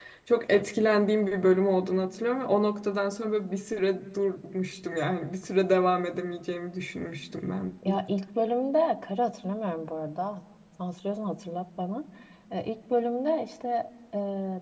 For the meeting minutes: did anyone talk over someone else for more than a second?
No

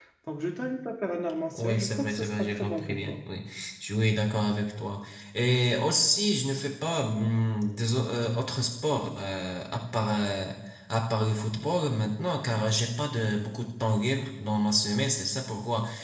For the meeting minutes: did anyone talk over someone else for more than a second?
Yes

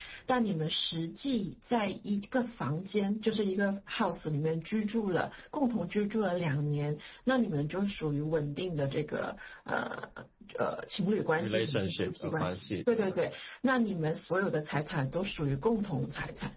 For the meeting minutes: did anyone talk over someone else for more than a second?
Yes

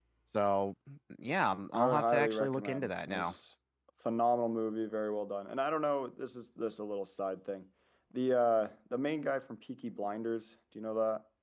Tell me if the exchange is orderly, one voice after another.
No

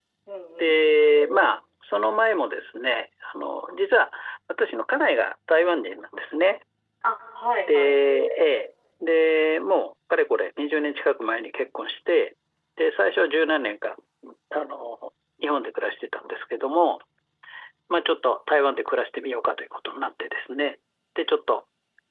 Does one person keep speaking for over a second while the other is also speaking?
No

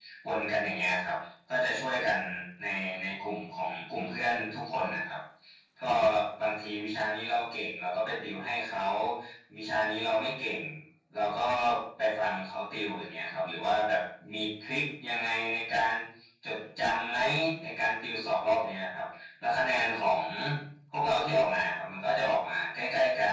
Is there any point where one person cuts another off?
No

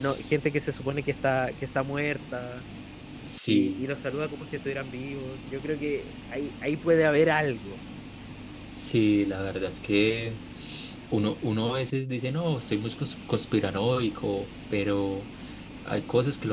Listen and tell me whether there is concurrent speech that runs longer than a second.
No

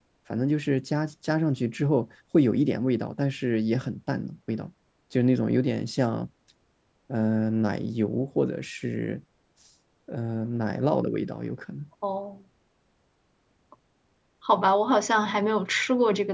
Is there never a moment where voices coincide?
Yes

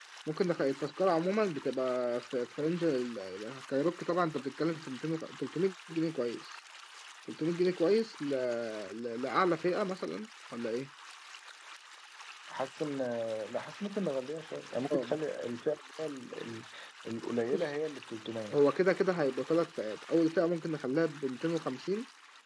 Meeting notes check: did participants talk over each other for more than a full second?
No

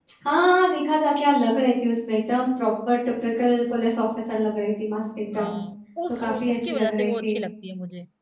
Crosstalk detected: Yes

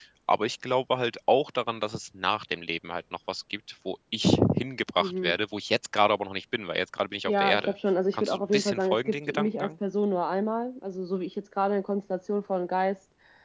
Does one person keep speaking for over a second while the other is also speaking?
Yes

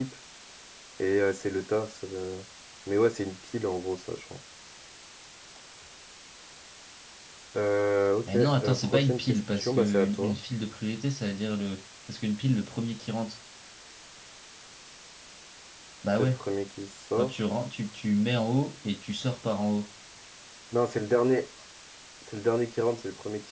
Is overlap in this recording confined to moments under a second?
No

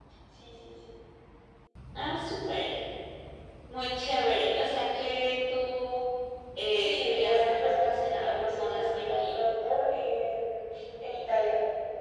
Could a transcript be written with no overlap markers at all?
No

